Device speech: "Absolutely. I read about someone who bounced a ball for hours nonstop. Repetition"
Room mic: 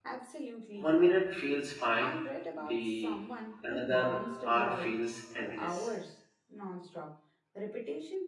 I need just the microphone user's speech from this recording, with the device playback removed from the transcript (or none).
One minute feels fine, the another hour feels endless.